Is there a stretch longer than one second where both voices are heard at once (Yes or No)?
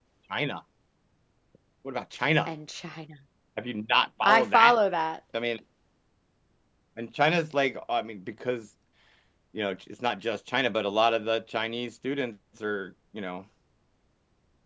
No